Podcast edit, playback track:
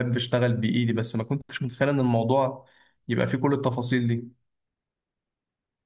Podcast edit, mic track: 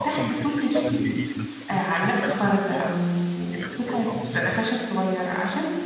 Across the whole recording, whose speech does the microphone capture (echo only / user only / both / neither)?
both